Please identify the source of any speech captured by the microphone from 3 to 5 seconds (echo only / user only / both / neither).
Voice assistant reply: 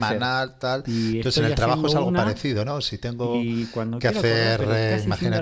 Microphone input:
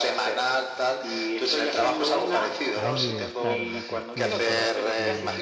both